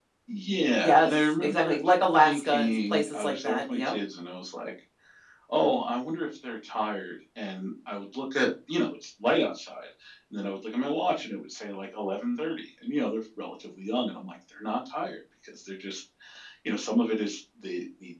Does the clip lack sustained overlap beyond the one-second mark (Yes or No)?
No